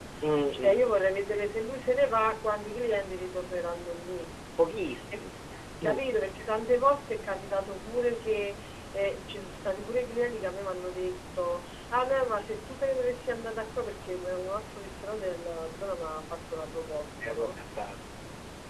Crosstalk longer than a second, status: none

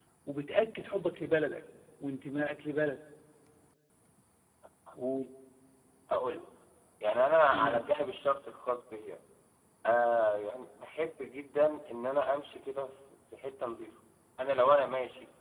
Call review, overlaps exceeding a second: none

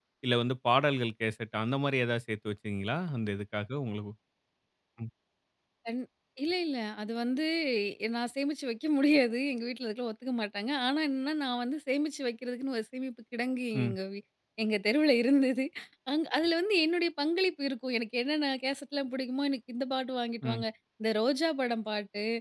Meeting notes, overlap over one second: none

